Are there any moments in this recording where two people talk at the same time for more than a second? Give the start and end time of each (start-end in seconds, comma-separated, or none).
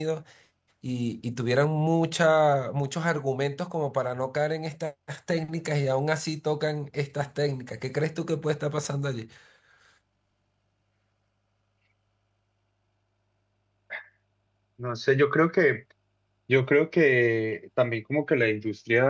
none